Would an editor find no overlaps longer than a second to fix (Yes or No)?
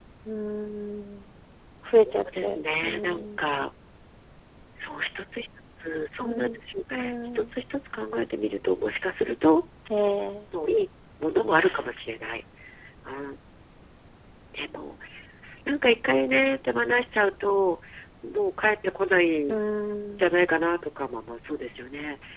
No